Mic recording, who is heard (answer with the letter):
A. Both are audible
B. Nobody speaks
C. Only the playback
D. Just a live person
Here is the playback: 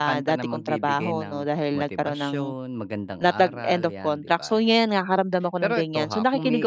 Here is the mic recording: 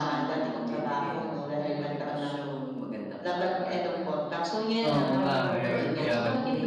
A